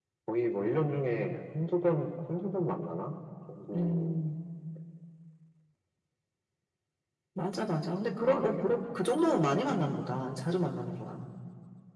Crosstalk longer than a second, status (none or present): none